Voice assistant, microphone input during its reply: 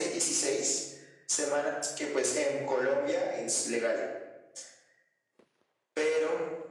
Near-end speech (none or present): none